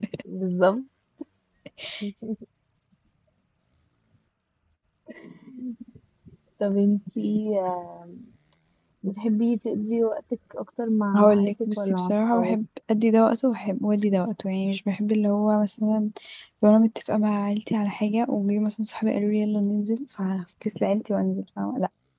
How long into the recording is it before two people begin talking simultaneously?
11 s

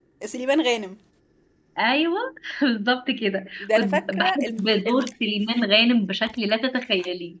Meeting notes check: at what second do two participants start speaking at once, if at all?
4 s

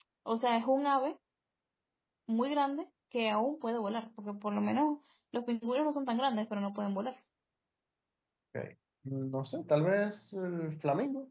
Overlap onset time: none

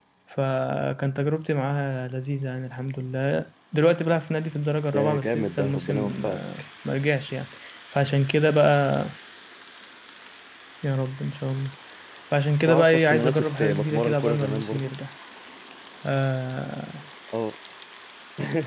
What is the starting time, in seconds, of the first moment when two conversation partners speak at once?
5 s

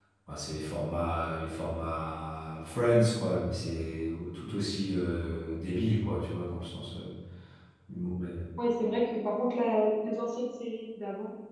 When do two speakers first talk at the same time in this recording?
none

